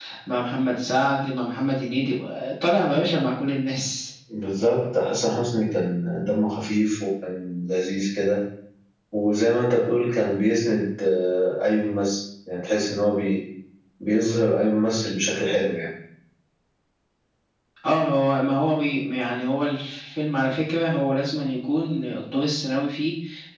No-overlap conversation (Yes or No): Yes